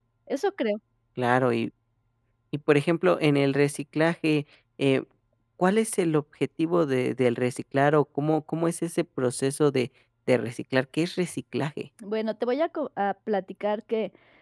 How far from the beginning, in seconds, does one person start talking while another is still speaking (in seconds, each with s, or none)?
none